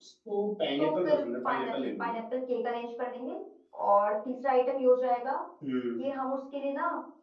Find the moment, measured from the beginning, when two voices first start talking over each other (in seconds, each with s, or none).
0.8 s